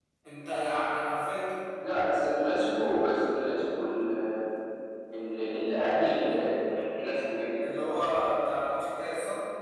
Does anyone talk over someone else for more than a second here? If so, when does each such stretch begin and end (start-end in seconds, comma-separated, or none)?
none